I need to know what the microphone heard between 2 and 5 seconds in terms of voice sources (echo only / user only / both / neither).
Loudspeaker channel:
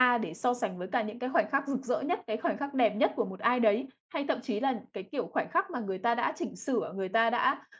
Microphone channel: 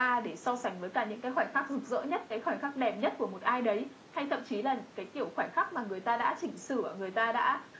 echo only